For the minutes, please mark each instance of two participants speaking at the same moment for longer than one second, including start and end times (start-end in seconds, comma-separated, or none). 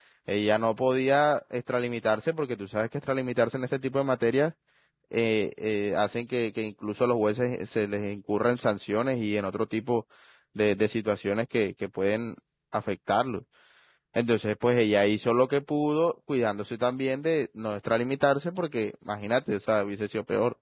none